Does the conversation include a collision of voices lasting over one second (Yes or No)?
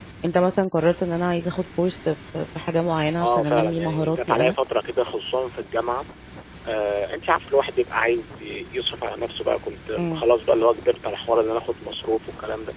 Yes